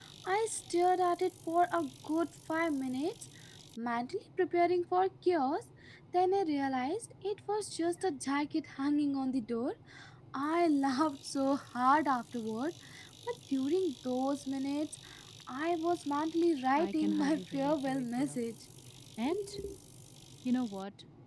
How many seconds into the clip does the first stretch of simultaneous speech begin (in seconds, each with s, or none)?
16.8 s